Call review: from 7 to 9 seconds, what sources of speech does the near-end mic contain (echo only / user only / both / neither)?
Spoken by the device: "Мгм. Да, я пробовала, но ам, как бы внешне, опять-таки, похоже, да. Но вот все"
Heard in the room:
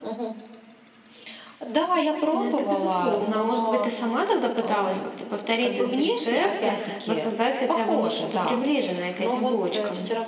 both